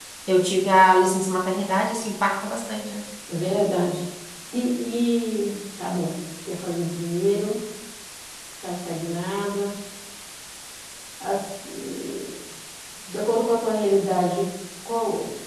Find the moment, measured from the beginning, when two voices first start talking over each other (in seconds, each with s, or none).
none